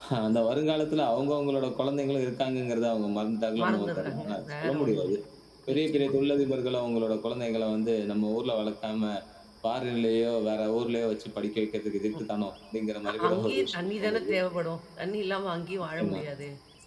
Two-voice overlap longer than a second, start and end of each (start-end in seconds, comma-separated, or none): 3.6-5.2, 13.1-14.3